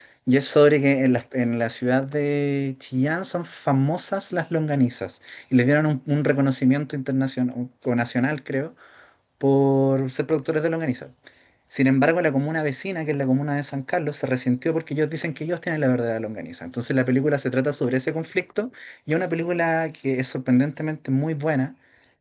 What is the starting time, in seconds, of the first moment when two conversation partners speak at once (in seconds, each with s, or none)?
none